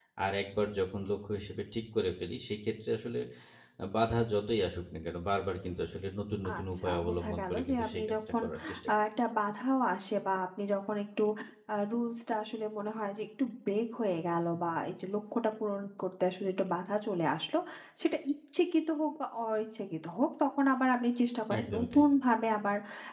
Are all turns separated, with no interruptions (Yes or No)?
No